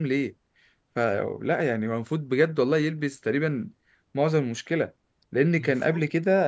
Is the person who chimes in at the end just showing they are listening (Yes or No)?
Yes